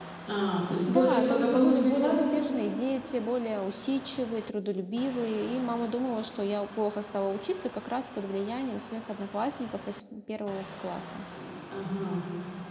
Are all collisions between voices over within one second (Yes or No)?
No